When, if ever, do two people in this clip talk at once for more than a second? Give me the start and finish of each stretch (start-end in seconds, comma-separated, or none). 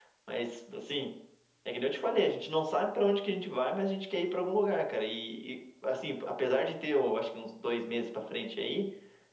none